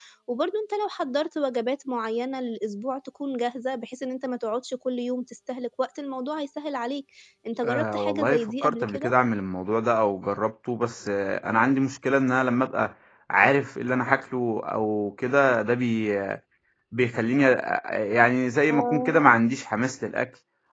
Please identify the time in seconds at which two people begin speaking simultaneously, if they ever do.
7.7 s

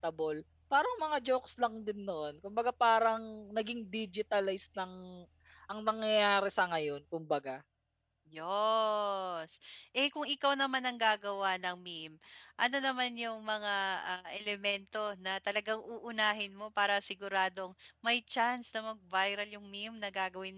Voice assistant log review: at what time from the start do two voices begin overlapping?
none

